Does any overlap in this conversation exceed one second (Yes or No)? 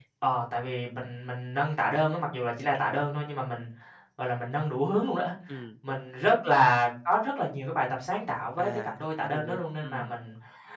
Yes